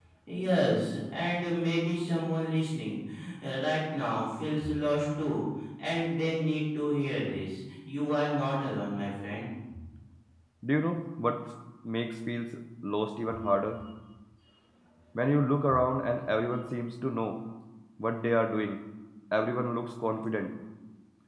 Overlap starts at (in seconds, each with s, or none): none